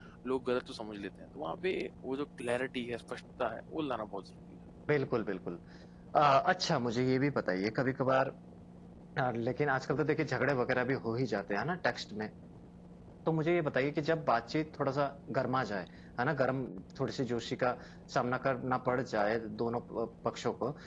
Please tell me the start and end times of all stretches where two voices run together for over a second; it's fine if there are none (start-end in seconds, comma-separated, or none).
none